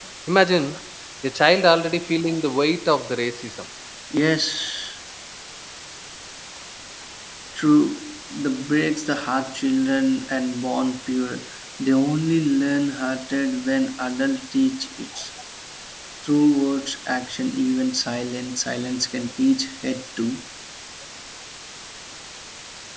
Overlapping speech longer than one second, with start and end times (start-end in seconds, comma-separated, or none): none